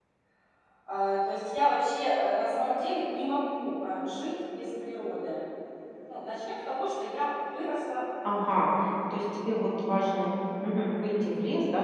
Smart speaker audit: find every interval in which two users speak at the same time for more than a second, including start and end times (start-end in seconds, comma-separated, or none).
none